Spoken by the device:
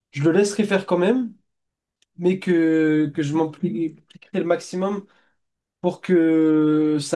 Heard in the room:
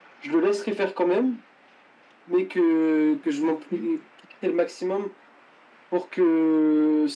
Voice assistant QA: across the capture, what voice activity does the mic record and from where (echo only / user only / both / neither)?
echo only